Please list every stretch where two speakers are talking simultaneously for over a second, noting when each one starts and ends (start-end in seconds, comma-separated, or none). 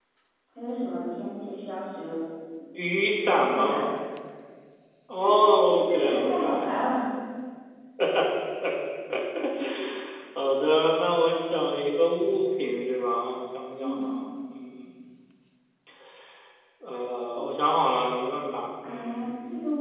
5.2-6.7